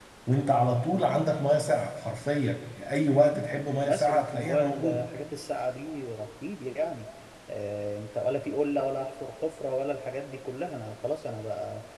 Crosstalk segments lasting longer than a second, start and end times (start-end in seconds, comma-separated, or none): 3.8-5.1